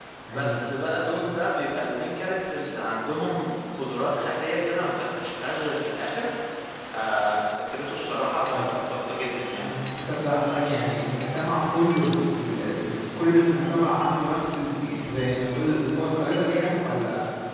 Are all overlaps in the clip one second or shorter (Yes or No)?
Yes